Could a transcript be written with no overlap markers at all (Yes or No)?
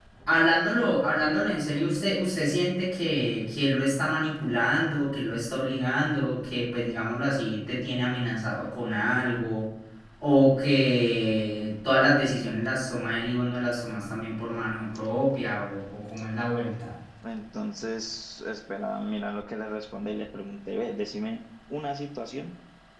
Yes